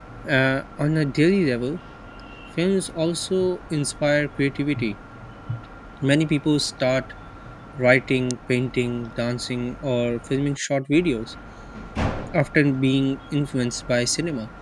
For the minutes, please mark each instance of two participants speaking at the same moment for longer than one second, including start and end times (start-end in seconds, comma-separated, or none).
none